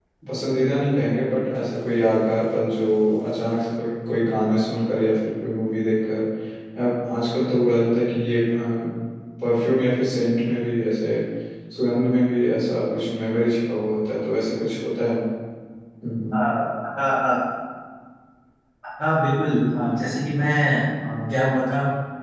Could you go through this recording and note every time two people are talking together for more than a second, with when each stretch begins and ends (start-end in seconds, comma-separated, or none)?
none